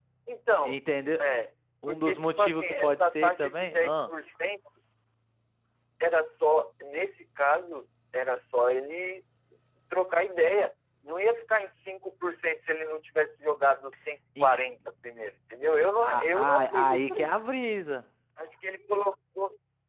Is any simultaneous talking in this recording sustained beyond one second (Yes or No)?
Yes